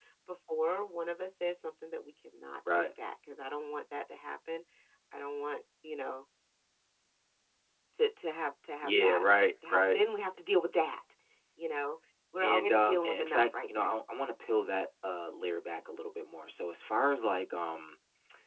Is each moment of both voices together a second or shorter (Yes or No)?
No